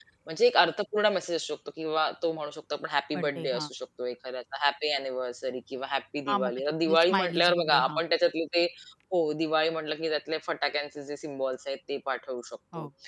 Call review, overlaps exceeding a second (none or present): present